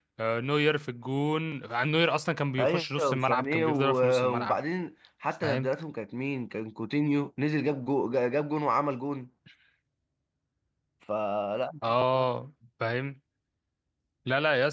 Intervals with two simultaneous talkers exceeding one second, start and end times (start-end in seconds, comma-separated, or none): 2.6-4.5